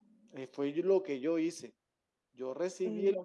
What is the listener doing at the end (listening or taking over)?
listening